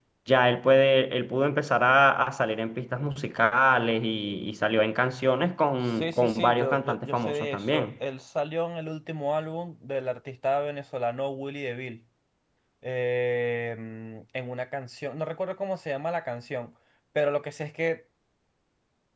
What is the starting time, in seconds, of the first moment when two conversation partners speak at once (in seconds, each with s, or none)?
5.8 s